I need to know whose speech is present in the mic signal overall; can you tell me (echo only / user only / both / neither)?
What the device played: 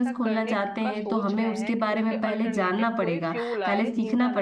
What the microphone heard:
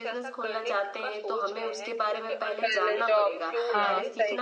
both